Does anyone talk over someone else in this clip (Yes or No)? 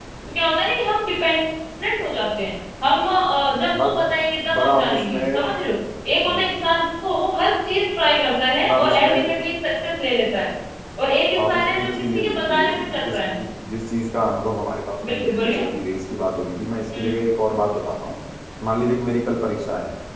Yes